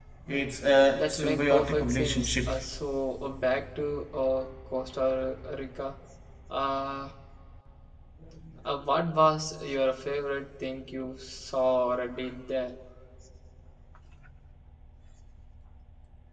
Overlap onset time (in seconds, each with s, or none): 1.0 s